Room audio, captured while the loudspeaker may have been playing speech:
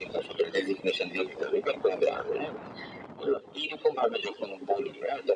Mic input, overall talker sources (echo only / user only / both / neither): echo only